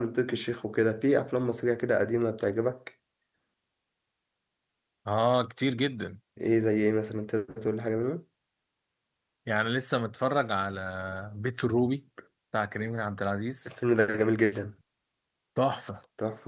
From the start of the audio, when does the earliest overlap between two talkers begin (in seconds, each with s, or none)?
none